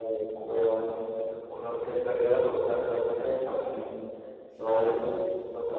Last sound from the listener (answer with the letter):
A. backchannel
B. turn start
A